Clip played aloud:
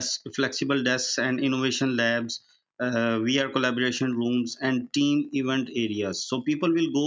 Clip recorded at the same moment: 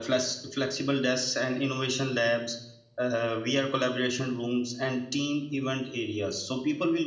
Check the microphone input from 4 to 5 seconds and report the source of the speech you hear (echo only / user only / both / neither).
echo only